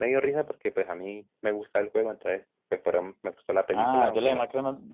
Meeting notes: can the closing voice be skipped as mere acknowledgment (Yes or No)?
No